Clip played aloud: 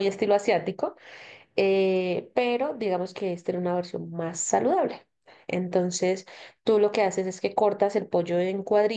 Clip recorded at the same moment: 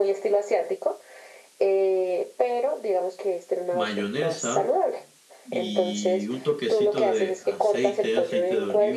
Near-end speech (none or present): present